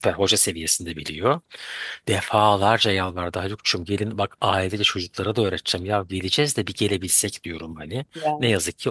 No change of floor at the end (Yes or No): Yes